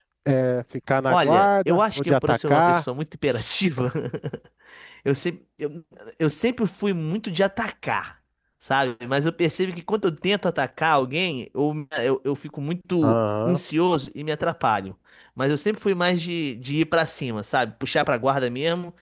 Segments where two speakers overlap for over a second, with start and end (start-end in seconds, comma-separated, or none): 1.1-2.8